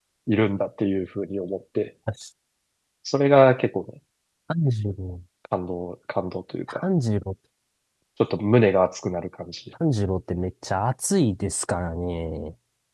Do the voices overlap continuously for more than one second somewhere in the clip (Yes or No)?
No